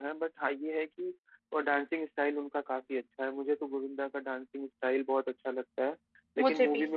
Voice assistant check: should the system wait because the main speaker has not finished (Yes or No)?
Yes